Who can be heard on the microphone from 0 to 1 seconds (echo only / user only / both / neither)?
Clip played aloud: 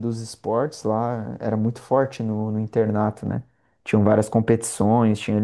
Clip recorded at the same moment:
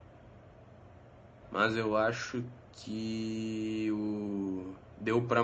neither